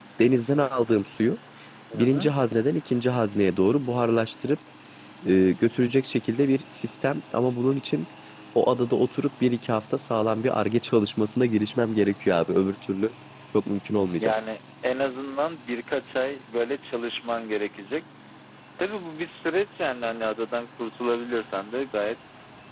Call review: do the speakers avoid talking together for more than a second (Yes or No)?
Yes